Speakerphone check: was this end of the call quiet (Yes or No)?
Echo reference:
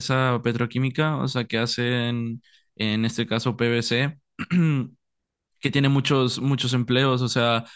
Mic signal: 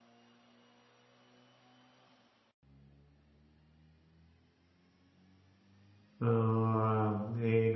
No